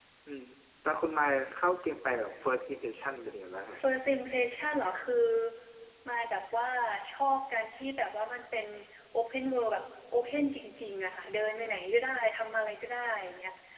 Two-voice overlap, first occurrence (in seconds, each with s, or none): none